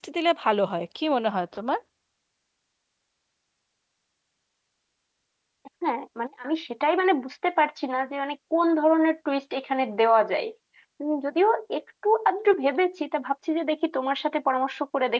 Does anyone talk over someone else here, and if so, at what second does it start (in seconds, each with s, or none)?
none